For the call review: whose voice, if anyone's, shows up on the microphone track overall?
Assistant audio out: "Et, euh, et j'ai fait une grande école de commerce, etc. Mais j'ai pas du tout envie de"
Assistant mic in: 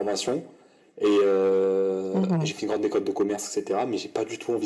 both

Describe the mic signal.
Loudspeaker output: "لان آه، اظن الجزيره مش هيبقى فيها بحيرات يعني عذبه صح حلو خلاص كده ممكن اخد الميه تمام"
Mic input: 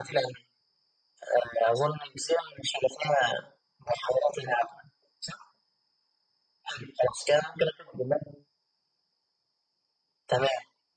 echo only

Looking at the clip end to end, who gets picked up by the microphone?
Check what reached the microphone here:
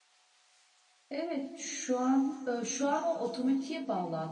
echo only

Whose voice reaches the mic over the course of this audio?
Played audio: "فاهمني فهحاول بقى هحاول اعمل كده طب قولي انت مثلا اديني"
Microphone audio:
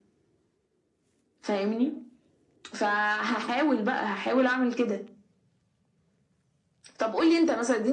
echo only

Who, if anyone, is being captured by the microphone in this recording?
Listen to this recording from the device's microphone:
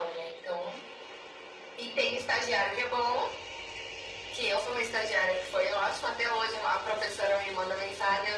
echo only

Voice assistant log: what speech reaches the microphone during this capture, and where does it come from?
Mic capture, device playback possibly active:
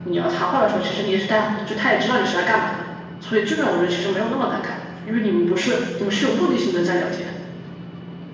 echo only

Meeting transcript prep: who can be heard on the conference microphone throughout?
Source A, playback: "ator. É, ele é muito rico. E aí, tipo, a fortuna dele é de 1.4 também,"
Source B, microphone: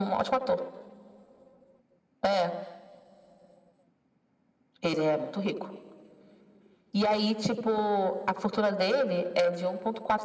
echo only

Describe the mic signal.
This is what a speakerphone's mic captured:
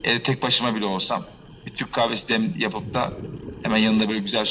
echo only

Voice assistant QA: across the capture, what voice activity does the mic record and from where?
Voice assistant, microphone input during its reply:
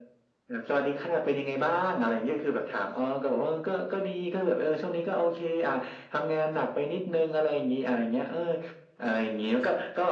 echo only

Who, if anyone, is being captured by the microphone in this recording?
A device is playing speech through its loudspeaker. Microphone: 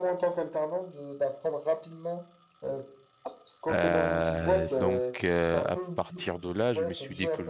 both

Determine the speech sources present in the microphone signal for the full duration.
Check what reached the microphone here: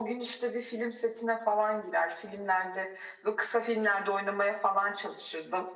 echo only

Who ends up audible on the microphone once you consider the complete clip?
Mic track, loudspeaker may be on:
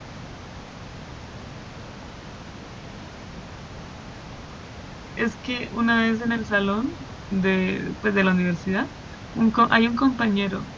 user only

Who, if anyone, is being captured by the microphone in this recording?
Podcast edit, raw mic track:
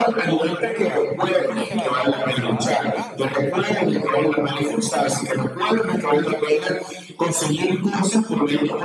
both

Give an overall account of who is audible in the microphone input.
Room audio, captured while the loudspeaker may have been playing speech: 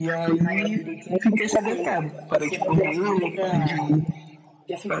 echo only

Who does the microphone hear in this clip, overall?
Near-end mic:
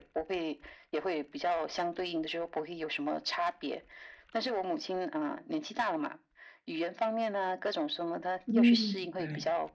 both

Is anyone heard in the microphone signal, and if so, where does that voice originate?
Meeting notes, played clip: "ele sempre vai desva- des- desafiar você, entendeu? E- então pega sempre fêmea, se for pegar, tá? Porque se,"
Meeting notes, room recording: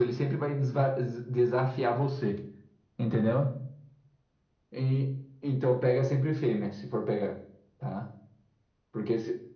echo only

